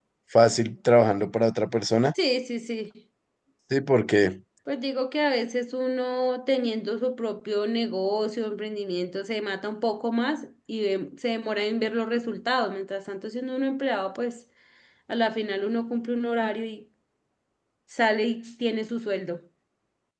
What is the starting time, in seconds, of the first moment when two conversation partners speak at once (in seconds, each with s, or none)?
none